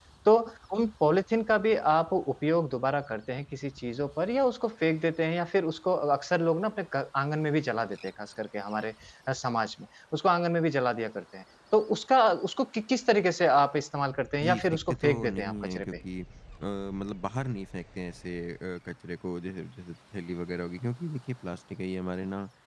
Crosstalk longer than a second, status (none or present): present